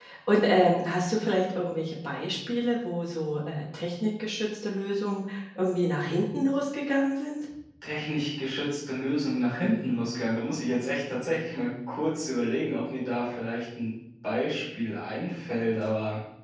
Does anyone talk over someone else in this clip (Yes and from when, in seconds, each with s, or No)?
No